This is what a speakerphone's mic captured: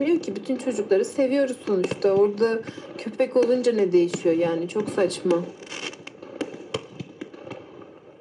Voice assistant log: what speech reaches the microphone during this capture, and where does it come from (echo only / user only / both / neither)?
echo only